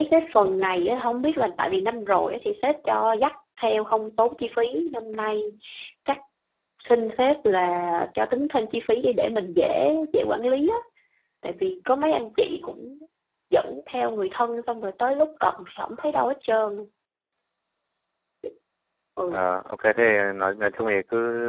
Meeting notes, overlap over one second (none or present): none